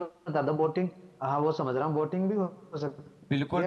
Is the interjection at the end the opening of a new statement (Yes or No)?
Yes